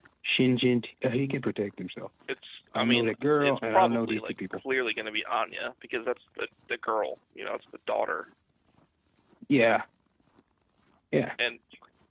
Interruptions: present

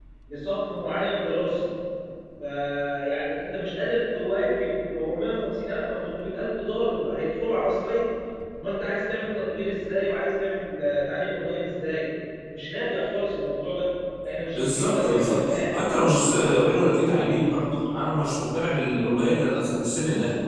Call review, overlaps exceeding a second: present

